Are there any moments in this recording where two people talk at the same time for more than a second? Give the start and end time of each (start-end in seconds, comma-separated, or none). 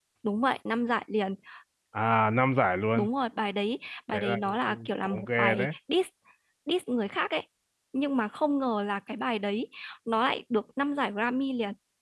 4.1-5.7